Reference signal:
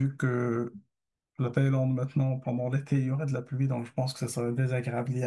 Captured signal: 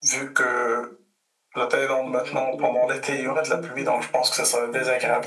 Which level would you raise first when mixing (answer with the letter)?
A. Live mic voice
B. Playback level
A